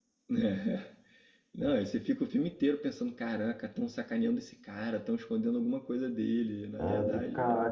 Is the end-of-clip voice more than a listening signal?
Yes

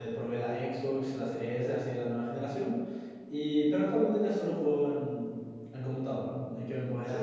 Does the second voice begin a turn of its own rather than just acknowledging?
Yes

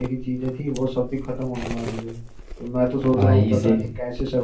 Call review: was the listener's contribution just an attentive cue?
Yes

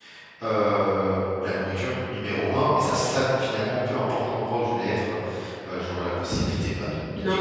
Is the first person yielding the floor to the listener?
Yes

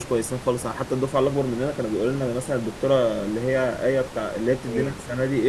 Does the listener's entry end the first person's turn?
No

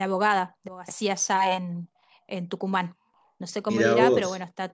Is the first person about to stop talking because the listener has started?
No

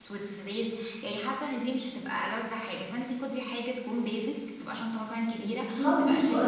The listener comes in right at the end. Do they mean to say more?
Yes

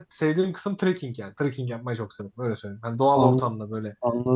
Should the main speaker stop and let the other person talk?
Yes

